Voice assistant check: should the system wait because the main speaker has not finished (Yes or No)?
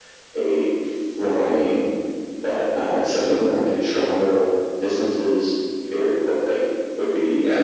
No